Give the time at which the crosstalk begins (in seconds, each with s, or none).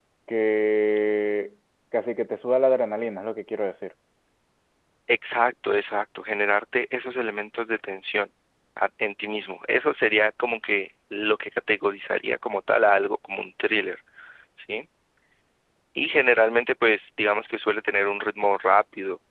none